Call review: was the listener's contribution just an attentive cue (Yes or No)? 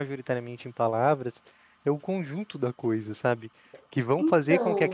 Yes